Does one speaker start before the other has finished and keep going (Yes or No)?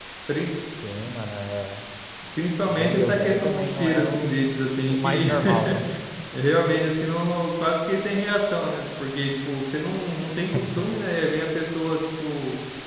Yes